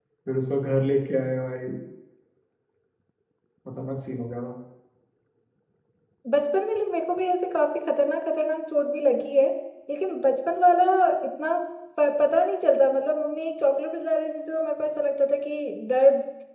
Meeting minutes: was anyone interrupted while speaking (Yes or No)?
No